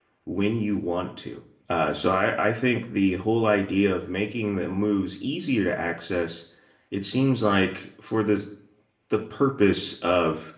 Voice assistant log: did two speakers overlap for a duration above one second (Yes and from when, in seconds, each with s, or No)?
No